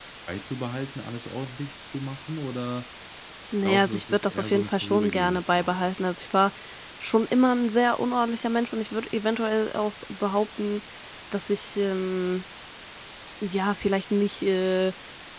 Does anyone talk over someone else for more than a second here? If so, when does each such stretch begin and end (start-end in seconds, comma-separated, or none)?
3.6-5.9